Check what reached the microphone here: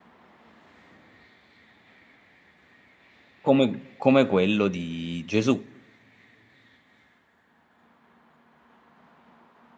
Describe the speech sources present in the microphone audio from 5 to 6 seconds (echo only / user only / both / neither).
user only